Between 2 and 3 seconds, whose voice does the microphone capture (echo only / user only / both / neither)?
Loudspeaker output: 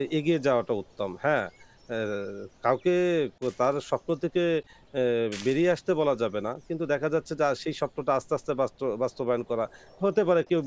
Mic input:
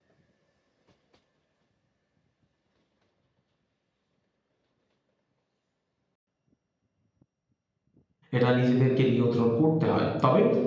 neither